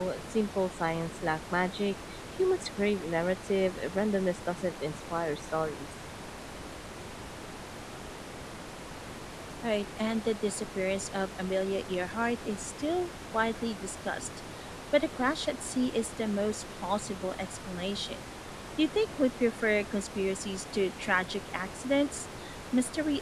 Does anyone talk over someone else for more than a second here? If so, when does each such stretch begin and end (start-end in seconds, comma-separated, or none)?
none